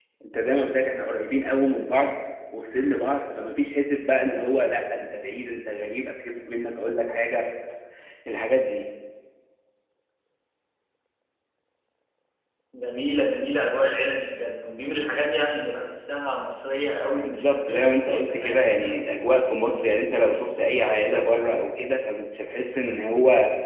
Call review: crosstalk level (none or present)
present